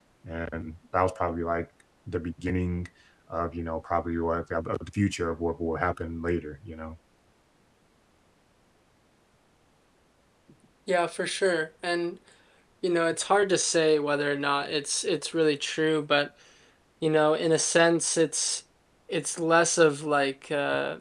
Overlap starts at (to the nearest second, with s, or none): none